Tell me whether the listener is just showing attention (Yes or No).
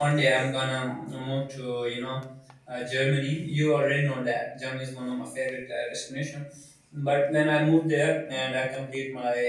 Yes